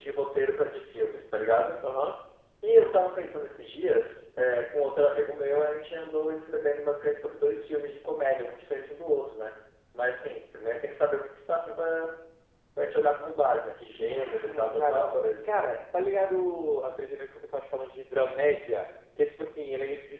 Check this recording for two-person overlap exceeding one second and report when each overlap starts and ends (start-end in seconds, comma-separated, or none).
14.1-15.7